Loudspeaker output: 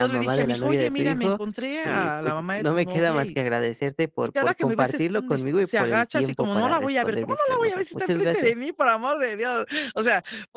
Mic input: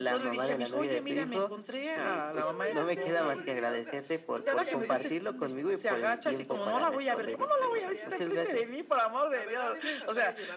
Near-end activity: present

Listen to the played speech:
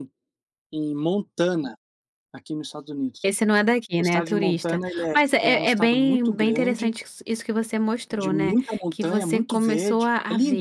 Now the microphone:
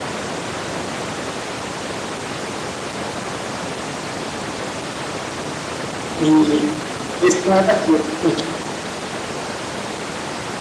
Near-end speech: present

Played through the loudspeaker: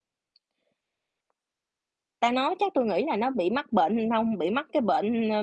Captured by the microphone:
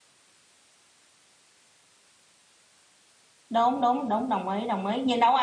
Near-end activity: present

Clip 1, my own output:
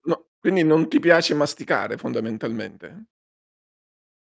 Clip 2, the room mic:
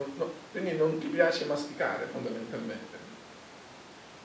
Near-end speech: none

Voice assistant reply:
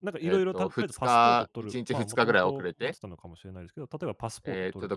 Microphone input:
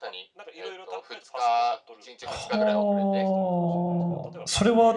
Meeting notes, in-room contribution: present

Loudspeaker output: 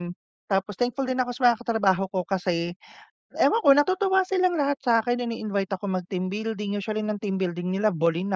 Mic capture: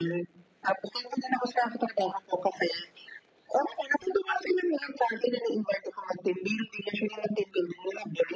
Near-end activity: none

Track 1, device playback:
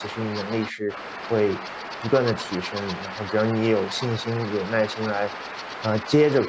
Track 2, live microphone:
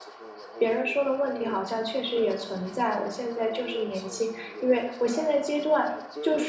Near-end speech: present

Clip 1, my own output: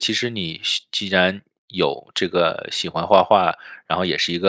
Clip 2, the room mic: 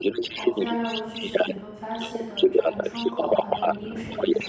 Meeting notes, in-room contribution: present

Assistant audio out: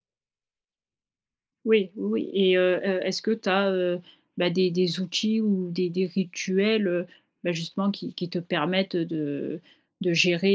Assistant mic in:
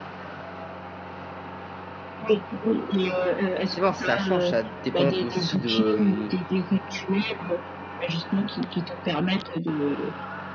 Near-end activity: present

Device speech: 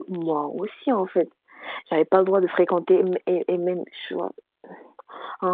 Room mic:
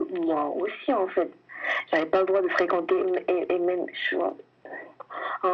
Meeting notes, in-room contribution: none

